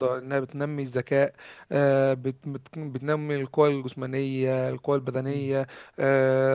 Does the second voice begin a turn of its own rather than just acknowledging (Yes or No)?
No